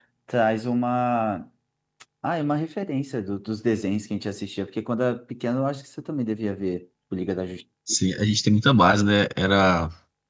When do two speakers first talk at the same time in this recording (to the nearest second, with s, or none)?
none